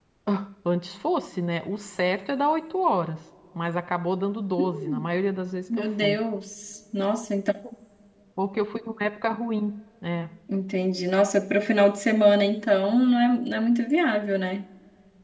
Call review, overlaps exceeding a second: none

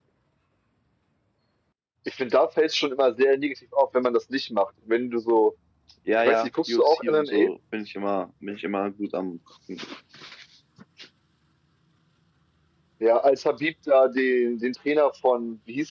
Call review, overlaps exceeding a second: present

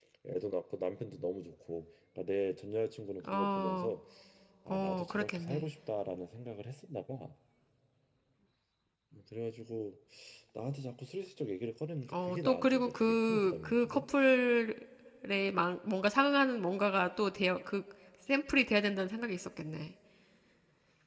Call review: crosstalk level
present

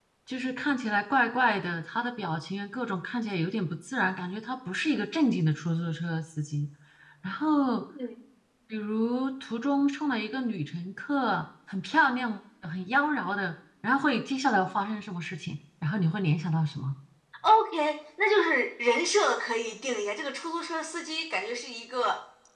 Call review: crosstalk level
none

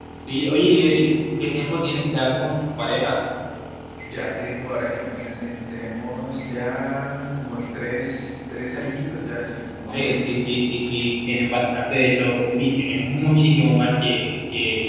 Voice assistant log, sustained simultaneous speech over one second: none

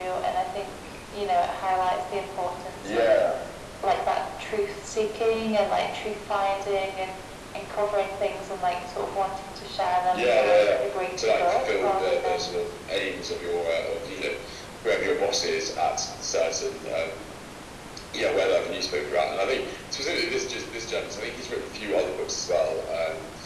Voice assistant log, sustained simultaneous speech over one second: present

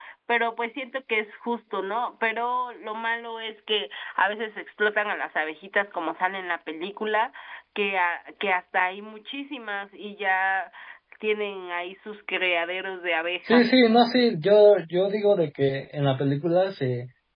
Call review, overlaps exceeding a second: none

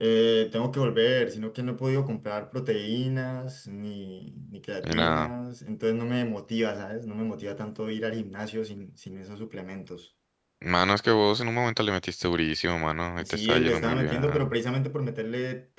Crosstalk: present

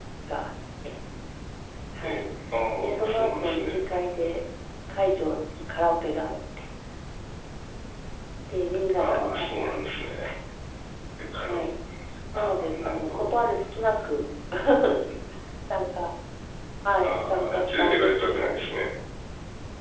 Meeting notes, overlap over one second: present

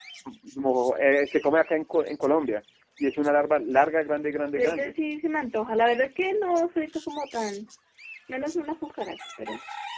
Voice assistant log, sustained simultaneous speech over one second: none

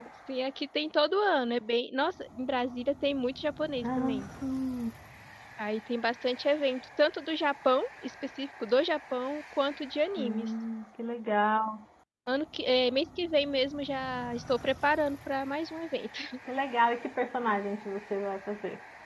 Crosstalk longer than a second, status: none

